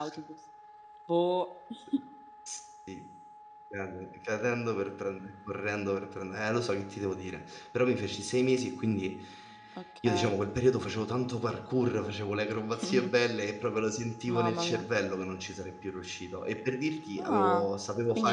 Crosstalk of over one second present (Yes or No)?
No